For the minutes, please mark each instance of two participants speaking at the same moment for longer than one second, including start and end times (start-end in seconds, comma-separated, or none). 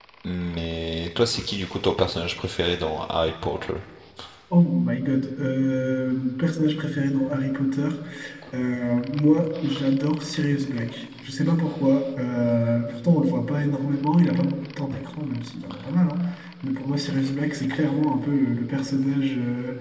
none